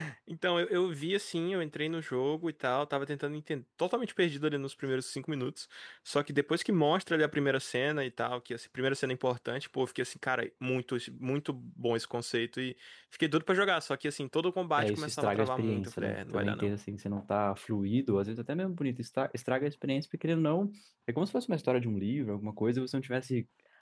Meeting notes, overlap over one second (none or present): present